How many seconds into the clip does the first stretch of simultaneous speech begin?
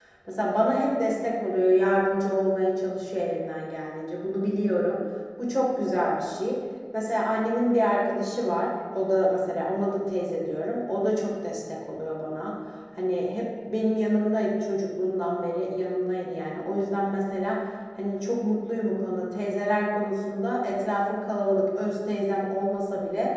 none

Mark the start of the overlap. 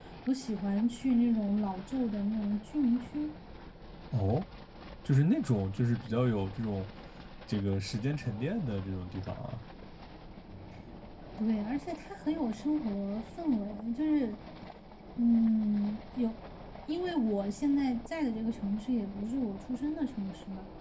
none

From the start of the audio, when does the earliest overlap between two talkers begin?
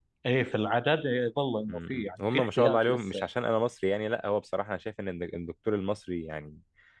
1.7 s

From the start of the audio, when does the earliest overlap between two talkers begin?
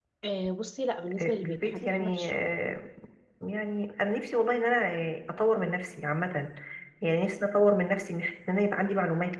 1.2 s

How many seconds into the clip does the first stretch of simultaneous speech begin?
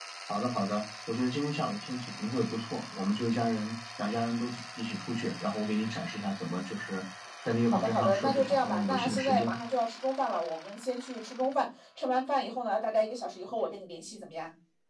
7.6 s

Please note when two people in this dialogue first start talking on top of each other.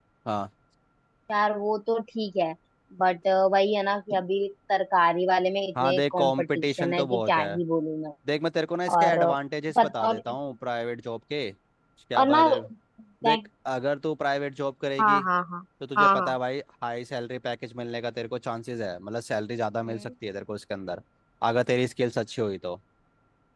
5.8 s

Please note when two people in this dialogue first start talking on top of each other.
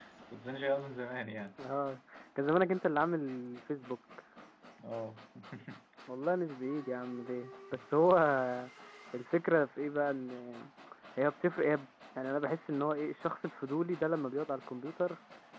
none

